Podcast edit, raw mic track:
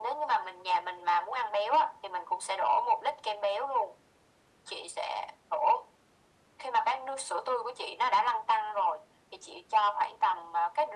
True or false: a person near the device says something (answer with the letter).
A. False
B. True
A